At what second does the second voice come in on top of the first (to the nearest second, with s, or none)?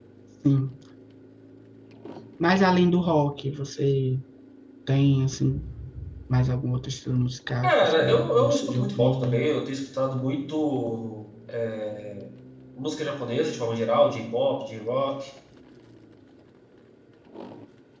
8 s